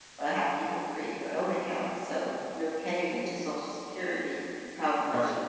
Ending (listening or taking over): listening